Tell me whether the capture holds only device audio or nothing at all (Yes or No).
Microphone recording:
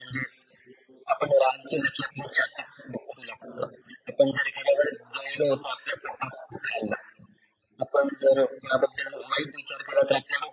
Yes